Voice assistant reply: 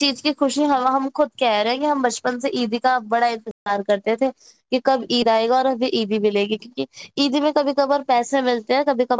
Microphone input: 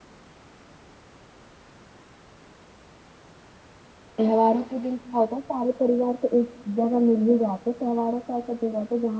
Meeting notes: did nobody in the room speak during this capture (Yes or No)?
No